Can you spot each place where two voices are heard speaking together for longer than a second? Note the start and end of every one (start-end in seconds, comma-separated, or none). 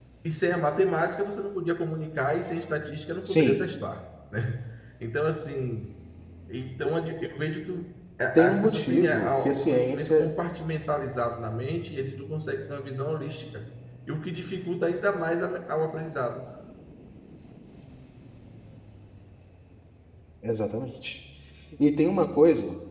8.4-10.3